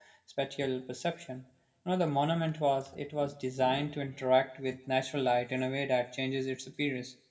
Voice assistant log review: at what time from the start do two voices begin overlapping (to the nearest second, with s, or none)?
none